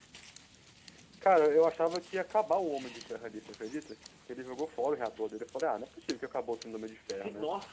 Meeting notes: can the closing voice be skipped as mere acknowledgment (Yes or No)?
No